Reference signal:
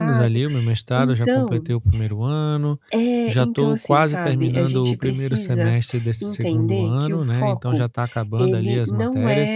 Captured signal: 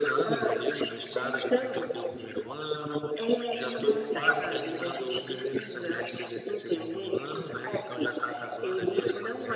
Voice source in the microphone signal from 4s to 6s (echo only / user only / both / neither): echo only